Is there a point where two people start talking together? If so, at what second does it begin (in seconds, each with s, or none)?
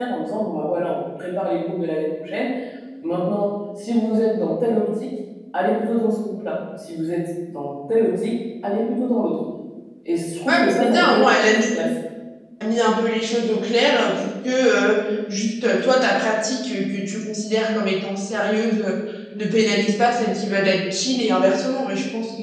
10.5 s